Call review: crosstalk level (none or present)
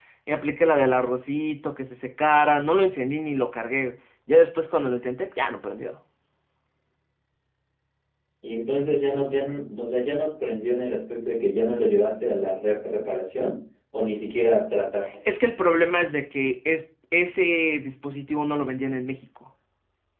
none